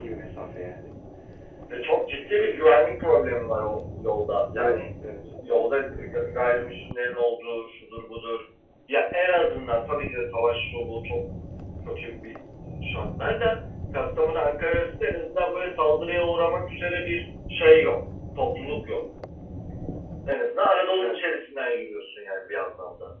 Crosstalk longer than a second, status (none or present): none